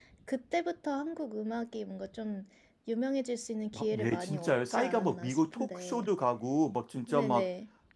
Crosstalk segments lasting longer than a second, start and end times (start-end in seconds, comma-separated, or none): 3.7-6.1